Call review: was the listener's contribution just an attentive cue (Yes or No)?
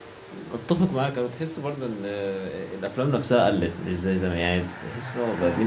Yes